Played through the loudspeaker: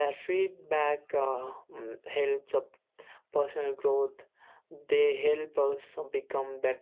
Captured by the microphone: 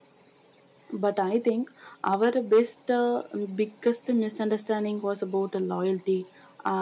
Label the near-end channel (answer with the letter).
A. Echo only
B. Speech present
B